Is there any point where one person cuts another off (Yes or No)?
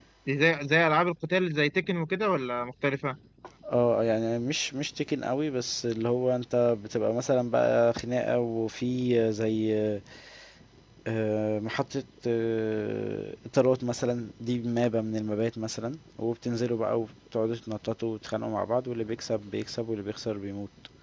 No